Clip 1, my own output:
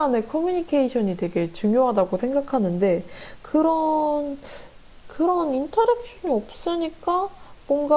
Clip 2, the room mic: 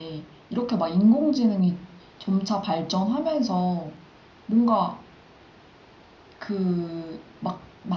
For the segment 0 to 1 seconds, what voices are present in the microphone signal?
user only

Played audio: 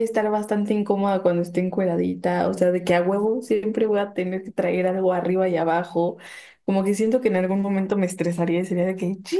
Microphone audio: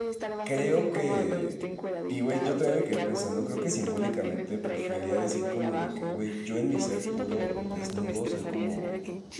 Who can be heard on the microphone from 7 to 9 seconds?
both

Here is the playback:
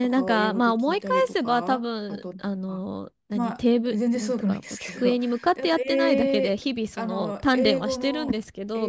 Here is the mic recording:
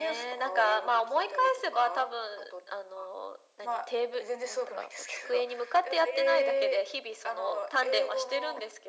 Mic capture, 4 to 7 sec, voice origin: echo only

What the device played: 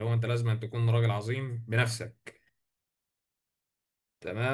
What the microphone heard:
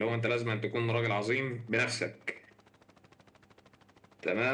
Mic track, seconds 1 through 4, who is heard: echo only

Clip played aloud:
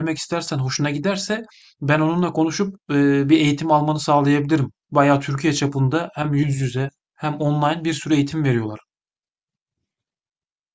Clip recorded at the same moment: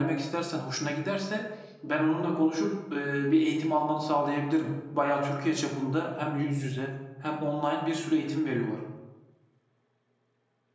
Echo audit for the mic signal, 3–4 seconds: echo only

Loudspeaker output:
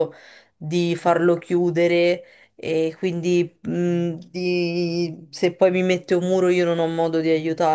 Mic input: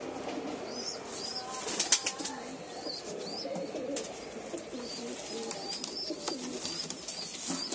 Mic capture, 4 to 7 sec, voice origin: neither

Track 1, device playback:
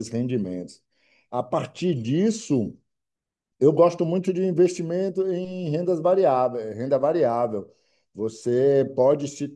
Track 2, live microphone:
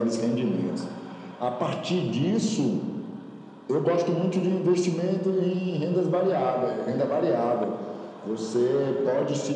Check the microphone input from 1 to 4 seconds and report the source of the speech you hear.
echo only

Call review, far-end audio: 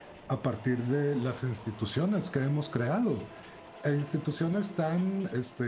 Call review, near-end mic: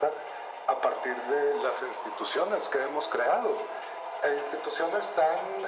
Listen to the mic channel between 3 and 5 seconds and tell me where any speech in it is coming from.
echo only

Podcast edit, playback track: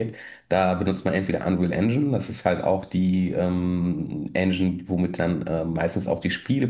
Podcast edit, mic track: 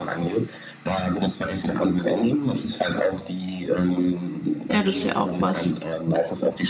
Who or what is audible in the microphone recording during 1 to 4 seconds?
echo only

